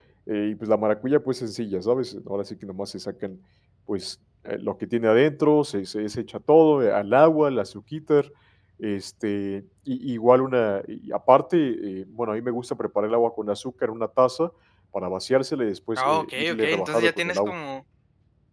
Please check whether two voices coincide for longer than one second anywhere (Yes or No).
Yes